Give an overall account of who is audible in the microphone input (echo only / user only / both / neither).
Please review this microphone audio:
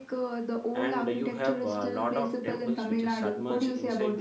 both